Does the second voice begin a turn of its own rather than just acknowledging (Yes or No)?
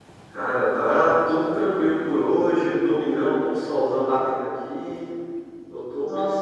No